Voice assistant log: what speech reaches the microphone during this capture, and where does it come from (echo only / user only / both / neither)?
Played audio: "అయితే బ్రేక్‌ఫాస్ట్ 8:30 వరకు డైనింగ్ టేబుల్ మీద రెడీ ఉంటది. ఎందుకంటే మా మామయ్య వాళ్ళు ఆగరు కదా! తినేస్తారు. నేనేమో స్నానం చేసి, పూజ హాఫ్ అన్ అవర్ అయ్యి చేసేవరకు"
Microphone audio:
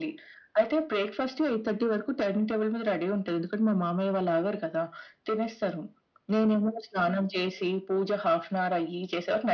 echo only